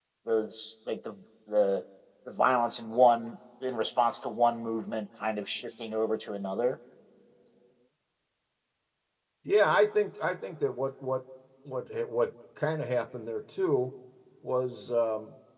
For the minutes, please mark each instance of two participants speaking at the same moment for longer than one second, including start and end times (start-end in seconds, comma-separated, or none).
none